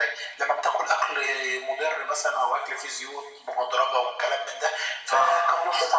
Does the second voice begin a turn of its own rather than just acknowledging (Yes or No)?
No